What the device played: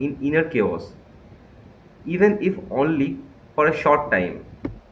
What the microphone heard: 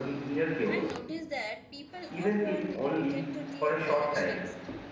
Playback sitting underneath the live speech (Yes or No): No